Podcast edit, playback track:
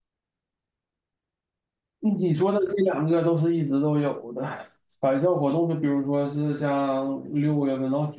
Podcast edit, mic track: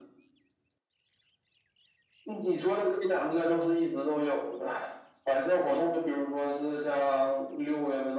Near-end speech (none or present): none